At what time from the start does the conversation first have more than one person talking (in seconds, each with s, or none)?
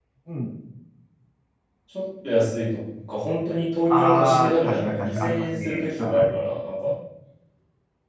3.9 s